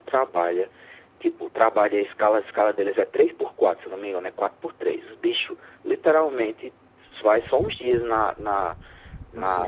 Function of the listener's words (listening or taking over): listening